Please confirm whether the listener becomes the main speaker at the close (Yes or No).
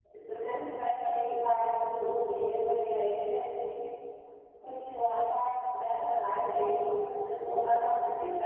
Yes